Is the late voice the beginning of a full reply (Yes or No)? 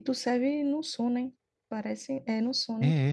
Yes